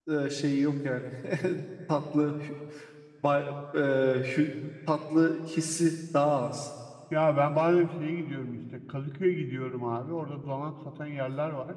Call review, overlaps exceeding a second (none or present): none